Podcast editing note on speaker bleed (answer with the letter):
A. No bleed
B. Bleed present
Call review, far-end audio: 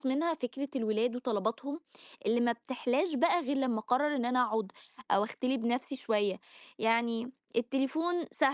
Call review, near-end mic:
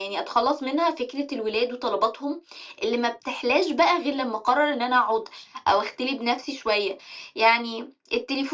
B